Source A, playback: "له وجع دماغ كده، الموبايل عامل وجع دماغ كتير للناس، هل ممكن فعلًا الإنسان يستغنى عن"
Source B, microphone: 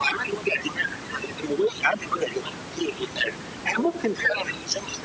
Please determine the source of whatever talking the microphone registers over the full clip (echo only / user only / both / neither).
echo only